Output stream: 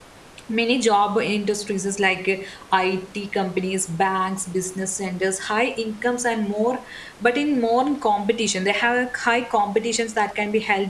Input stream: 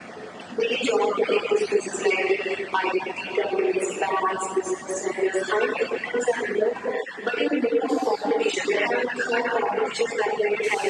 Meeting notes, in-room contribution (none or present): none